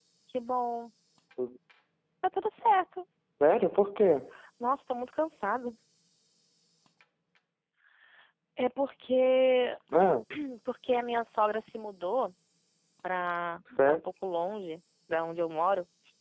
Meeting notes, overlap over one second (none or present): none